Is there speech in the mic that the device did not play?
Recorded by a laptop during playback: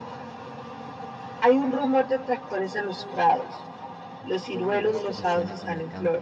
Yes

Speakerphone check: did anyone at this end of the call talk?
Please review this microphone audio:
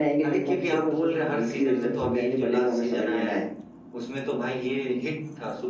No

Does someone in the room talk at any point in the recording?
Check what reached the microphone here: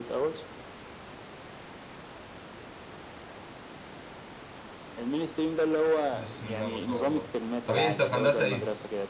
Yes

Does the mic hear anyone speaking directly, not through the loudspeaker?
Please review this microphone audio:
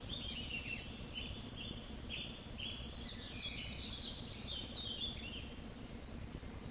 No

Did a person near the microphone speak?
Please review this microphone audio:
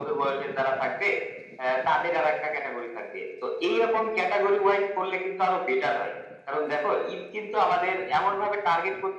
No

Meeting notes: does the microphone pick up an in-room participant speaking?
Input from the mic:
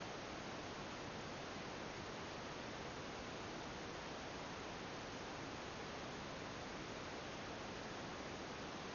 No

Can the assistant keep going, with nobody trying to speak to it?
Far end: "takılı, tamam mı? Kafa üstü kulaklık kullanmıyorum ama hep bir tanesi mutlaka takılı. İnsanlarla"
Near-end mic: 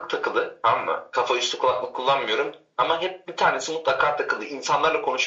Yes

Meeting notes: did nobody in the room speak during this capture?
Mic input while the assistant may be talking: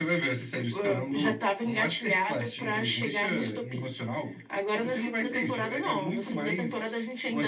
Yes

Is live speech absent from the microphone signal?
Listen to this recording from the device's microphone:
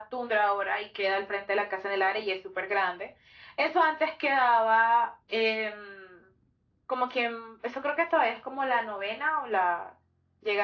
Yes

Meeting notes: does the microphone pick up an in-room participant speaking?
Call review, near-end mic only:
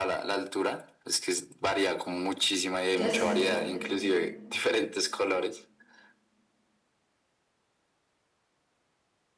Yes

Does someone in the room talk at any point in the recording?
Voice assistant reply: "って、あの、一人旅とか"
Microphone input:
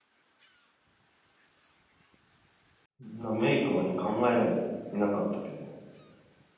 Yes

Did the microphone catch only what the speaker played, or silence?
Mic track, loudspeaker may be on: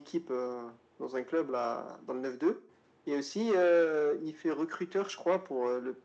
Yes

